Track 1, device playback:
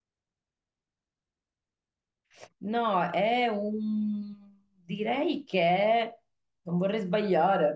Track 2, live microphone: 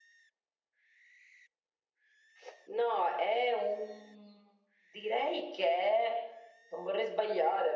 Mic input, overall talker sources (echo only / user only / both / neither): echo only